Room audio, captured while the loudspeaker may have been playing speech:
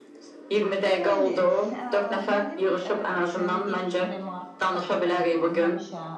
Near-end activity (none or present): present